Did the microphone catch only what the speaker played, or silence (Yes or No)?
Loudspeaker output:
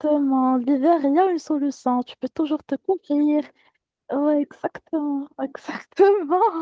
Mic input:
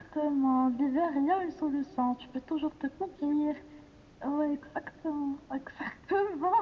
Yes